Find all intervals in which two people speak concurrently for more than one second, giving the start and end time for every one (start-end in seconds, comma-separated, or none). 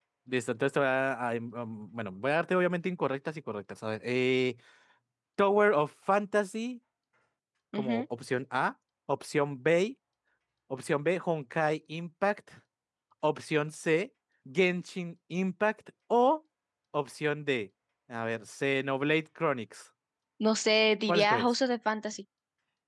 none